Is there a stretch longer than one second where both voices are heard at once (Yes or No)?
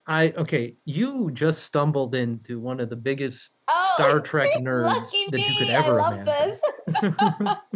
Yes